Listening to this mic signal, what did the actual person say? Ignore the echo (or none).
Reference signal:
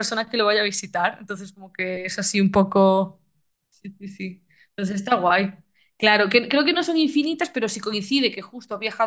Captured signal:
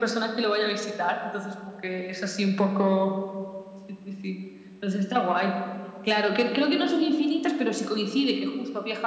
none